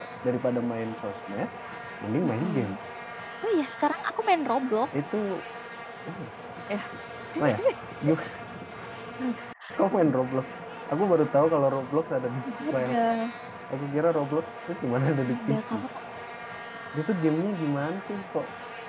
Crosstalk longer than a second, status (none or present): none